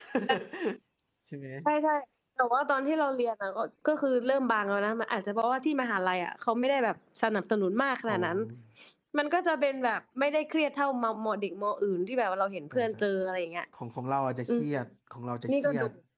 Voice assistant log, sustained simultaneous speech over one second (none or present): none